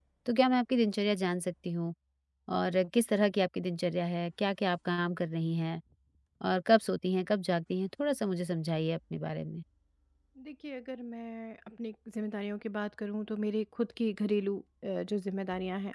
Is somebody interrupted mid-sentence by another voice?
No

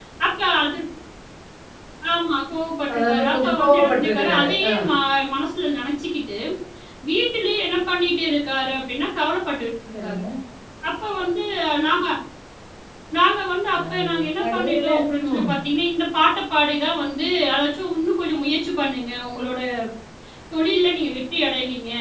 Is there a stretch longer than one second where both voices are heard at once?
Yes, from 2.9 s

